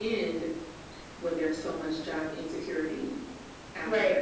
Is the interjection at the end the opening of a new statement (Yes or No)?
Yes